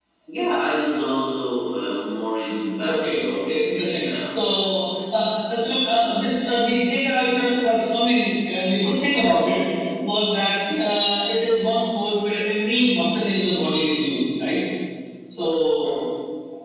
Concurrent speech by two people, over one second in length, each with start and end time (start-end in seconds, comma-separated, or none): 2.8-4.1